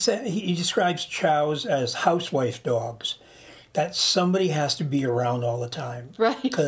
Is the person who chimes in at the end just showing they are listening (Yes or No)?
Yes